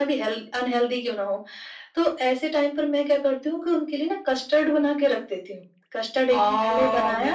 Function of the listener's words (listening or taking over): taking over